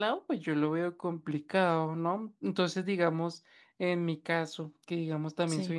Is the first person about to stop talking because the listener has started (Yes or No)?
No